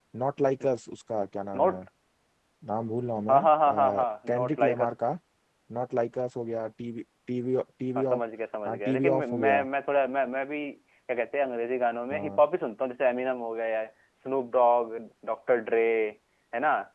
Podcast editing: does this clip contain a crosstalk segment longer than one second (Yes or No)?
Yes